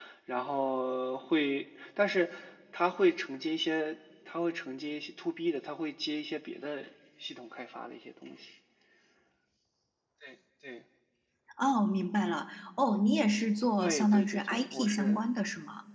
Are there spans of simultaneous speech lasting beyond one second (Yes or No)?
Yes